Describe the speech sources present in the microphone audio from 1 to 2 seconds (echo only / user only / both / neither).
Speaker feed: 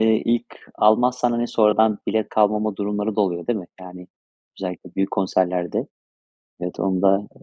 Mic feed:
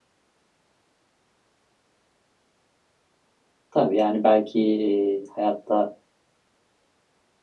neither